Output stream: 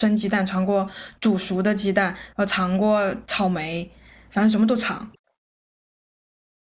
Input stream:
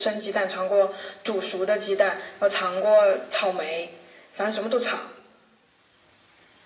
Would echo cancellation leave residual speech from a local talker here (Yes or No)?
No